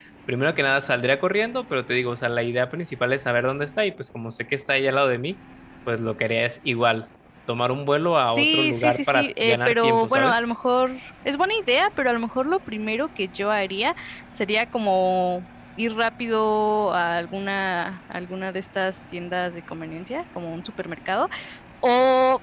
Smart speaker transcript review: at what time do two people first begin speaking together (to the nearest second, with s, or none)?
8 s